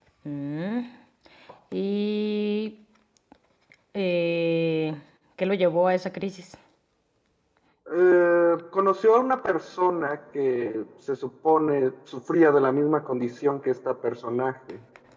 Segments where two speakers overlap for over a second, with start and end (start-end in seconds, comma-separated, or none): none